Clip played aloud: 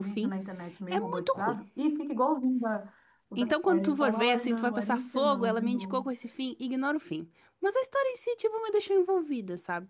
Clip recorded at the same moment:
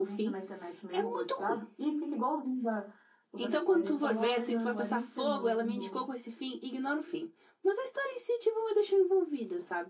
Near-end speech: none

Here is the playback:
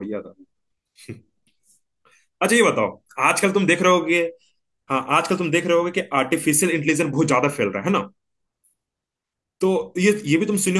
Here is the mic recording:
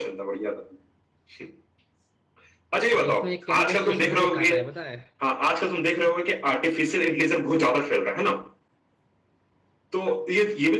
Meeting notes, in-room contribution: present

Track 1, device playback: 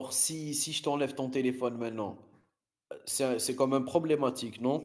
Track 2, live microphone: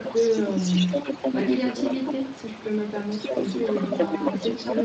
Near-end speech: present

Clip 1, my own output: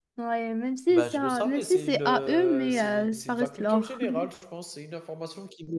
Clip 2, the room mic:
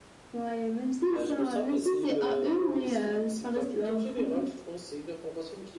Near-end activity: none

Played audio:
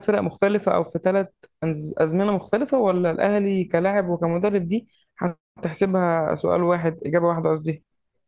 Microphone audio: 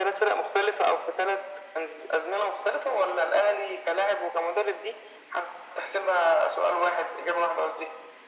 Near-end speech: none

